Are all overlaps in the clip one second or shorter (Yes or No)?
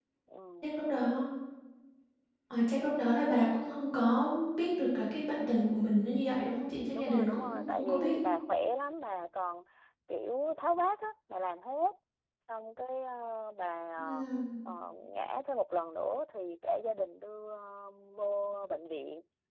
No